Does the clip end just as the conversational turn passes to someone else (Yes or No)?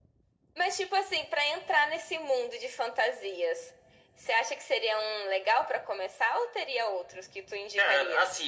Yes